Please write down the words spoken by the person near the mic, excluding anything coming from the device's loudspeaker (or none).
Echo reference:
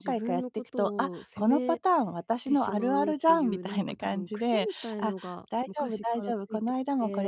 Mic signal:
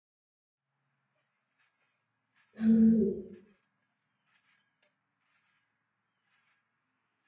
はい。